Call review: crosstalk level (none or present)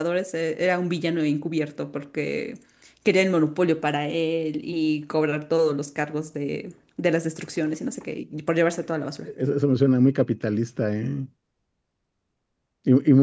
none